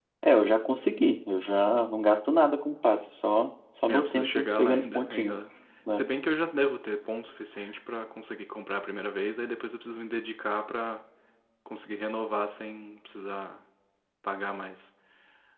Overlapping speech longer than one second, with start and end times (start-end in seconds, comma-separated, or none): 3.9-5.4